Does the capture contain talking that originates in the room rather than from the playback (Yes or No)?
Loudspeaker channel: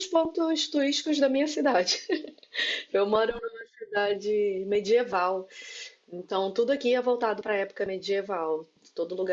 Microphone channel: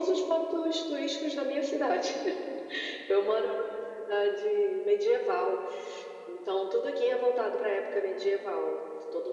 No